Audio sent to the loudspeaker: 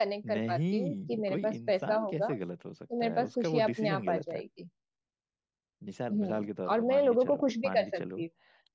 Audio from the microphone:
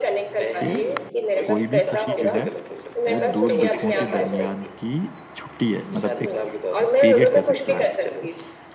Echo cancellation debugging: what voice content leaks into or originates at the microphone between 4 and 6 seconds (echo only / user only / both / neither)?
both